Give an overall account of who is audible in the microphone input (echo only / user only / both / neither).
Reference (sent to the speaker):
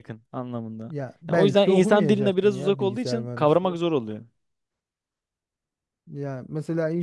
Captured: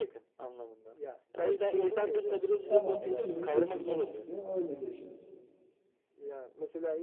both